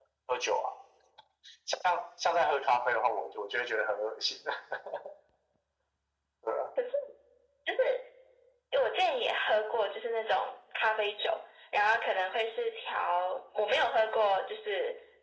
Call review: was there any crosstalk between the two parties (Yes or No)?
No